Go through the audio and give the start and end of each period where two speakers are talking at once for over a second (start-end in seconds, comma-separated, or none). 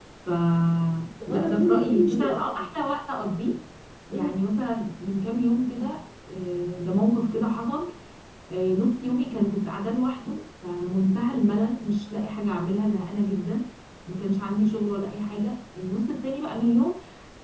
1.3-2.7